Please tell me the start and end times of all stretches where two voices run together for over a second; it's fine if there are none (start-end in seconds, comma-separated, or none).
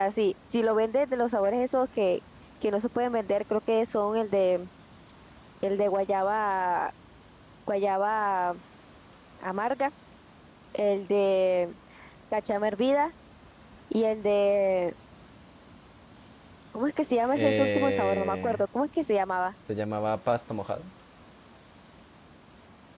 17.3-18.6